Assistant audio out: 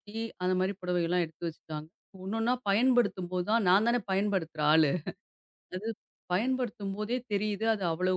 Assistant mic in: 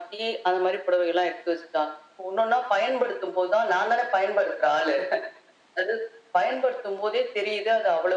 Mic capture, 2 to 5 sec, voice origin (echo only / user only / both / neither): echo only